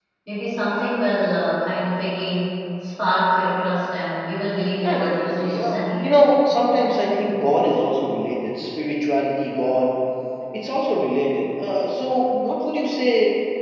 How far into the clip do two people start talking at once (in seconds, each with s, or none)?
4.8 s